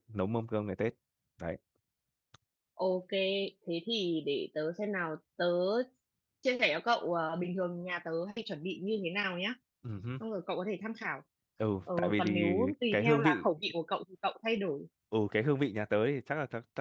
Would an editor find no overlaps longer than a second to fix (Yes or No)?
No